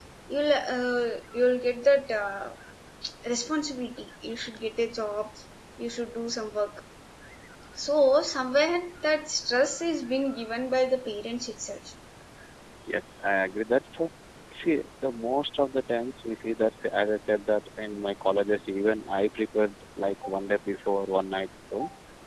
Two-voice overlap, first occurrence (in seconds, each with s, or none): none